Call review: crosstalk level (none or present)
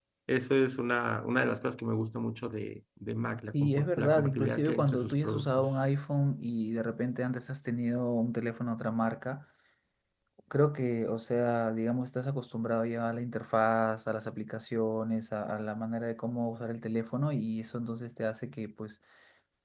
present